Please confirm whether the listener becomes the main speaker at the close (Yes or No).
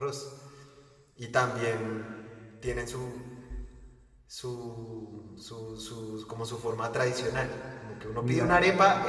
No